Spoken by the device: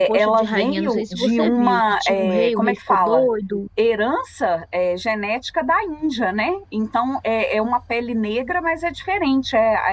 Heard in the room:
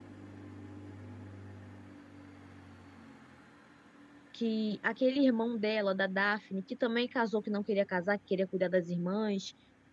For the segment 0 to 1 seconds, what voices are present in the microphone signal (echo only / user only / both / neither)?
neither